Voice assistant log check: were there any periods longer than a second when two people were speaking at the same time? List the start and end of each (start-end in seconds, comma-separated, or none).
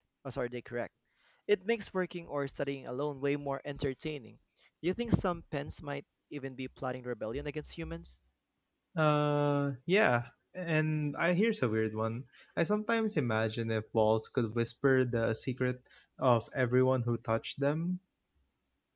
none